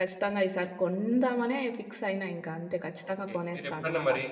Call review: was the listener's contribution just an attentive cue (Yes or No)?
No